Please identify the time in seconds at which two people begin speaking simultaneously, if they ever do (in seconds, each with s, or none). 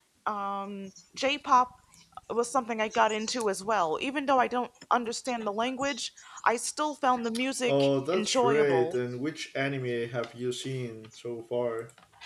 7.7 s